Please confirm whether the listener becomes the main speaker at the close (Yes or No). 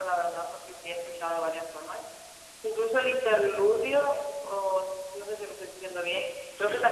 No